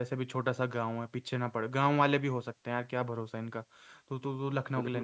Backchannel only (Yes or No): No